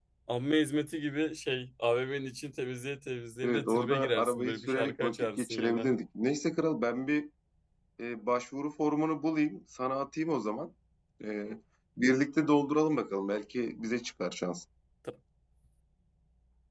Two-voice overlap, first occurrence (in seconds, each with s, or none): 3.4 s